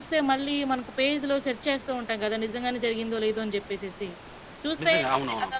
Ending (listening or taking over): listening